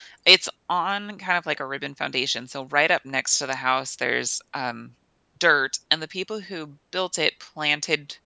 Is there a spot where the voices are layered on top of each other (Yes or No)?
No